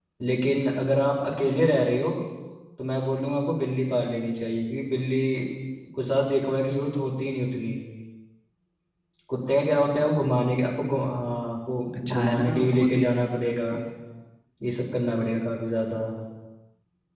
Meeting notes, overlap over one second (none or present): present